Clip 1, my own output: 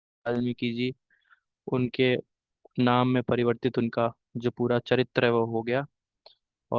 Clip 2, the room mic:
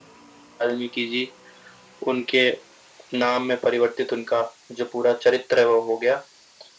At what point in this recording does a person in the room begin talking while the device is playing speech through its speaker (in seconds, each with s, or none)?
none